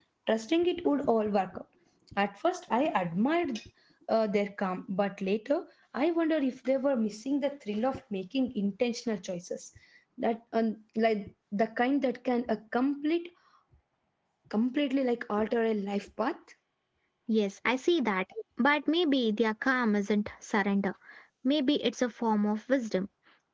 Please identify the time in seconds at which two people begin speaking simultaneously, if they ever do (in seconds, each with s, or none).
none